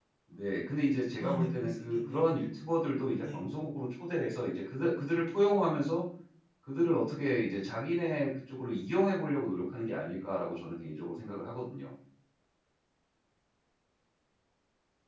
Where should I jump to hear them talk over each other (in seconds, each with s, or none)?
1.2 s